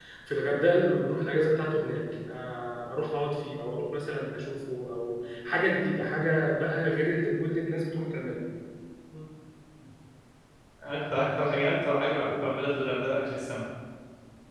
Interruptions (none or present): none